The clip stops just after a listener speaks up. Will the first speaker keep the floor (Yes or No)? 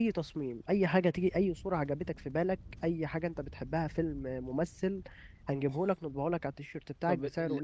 No